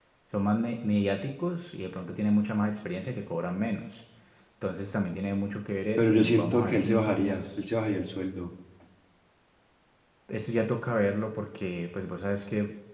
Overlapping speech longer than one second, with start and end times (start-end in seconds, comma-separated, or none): 6.0-7.6